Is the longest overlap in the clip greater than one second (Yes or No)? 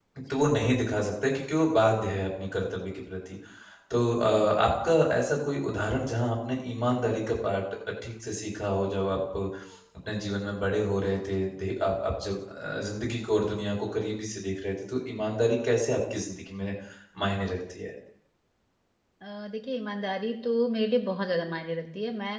No